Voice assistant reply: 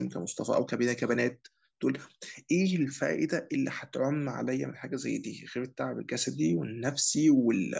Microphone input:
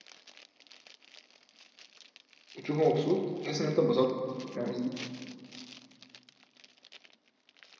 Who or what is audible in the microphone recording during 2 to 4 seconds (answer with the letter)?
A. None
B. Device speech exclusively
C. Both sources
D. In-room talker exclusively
D